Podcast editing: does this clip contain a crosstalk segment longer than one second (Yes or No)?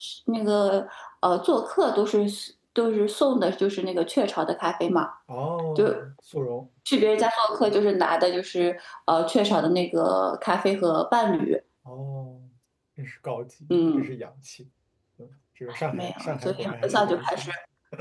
Yes